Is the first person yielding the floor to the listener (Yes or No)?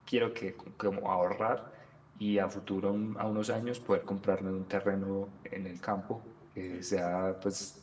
No